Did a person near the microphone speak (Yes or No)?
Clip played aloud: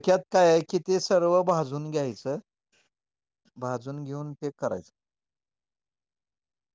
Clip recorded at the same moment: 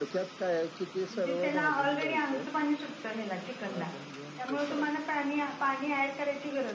Yes